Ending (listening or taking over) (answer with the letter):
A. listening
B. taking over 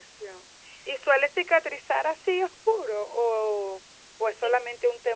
A